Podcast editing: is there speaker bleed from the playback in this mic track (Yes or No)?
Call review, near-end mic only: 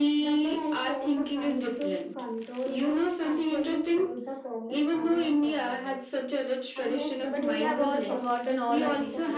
Yes